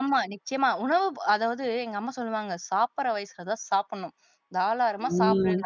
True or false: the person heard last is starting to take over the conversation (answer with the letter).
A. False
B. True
A